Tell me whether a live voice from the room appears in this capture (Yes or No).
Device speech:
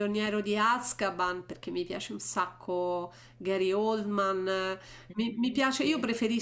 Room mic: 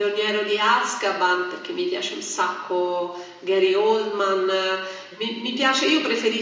No